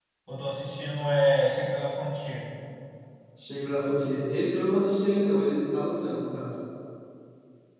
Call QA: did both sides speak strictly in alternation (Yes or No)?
Yes